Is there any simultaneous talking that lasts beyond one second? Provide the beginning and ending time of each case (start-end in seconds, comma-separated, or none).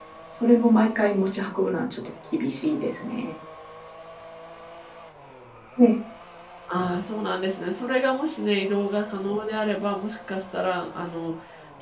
none